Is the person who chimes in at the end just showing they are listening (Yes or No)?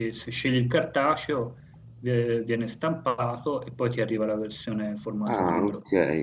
No